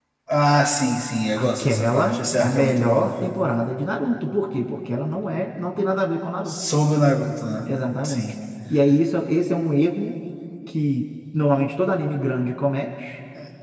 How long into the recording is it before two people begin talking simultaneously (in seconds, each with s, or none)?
1.4 s